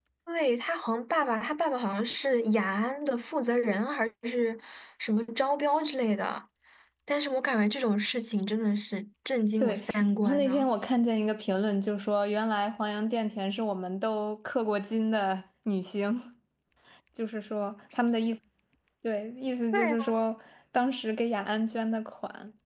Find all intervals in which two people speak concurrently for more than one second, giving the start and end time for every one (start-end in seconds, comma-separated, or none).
none